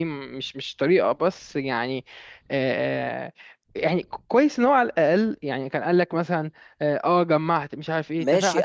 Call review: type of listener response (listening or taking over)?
taking over